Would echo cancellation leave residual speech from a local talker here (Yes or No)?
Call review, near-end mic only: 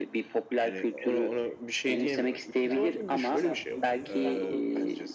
Yes